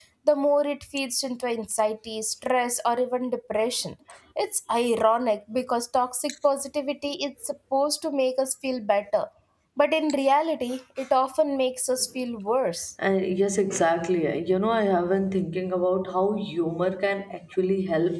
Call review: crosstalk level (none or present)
none